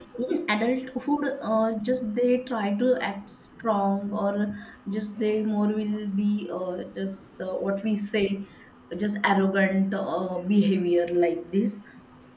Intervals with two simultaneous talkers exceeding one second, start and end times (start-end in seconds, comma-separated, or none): none